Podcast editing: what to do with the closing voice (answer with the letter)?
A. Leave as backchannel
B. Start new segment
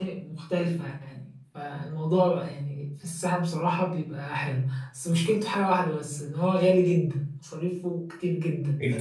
B